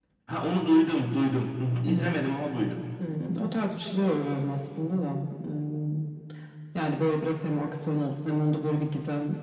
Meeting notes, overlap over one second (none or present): none